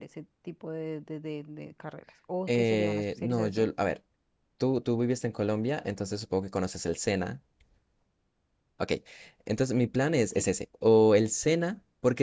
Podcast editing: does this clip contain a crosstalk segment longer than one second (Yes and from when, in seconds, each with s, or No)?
Yes, from 2.5 s